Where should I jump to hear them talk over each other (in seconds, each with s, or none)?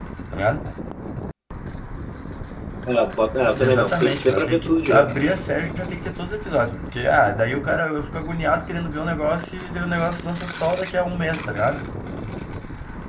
3.6 s